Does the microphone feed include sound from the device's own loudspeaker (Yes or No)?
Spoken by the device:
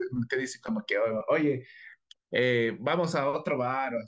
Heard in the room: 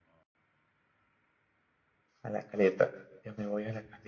No